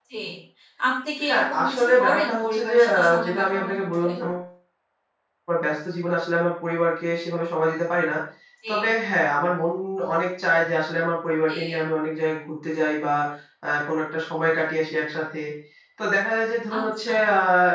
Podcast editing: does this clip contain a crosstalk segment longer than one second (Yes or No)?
Yes